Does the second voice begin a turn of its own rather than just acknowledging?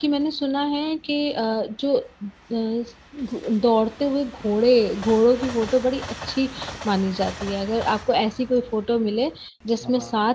No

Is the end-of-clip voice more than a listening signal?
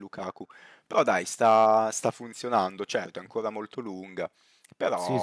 No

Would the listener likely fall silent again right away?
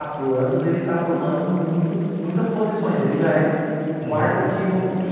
Yes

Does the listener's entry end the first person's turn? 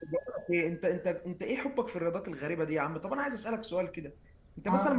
No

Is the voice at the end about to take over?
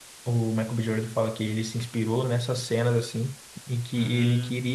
No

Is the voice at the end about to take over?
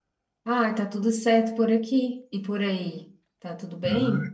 Yes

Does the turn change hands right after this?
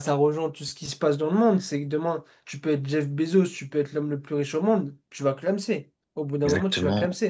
Yes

